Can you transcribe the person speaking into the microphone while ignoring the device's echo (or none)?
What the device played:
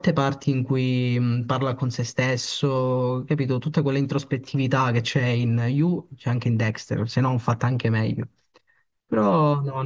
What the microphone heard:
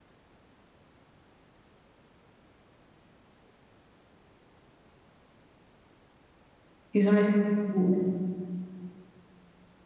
Ci sono le strutture.